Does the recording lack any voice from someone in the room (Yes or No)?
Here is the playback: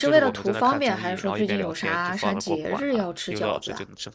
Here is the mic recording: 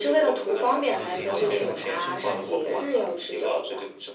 No